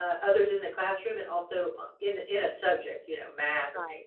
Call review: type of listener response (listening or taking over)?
taking over